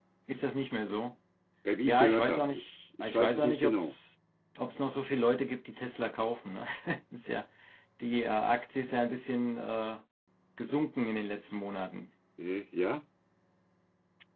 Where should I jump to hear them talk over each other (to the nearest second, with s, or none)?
2 s